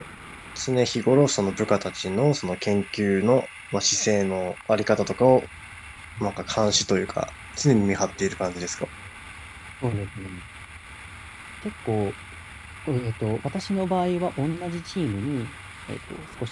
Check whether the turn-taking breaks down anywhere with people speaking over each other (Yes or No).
No